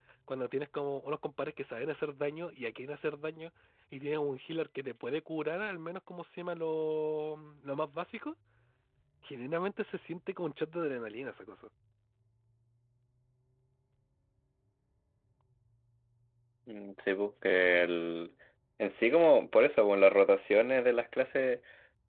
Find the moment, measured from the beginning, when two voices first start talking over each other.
none

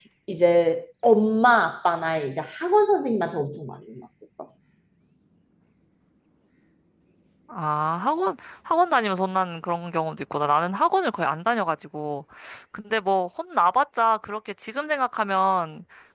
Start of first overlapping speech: none

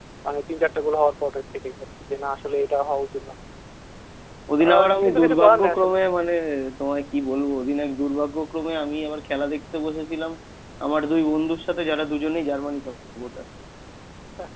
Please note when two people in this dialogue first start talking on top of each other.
4.6 s

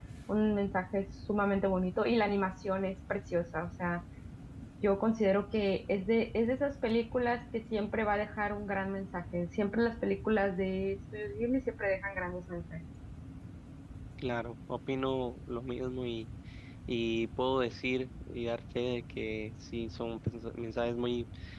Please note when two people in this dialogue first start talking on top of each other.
none

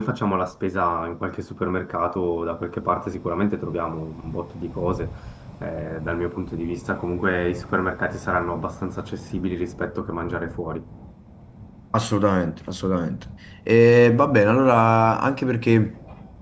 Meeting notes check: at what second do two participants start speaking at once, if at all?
none

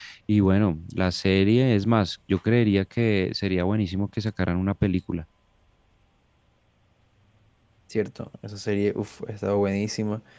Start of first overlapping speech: none

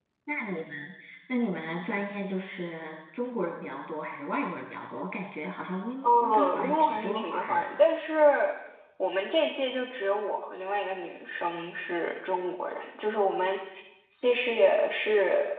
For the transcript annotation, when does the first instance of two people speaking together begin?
6.0 s

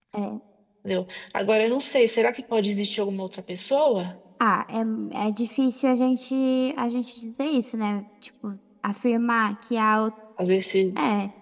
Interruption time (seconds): none

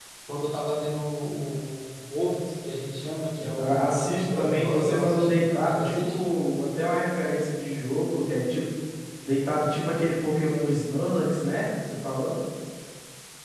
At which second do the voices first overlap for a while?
3.4 s

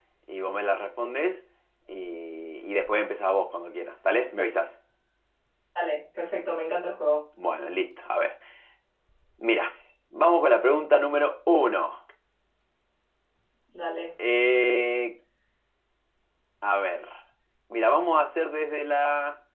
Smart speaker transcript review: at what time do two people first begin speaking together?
none

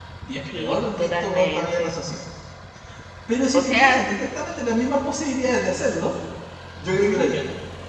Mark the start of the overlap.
0.6 s

